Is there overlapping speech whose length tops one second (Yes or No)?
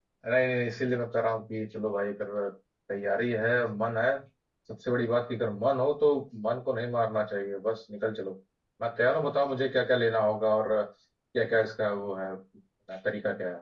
No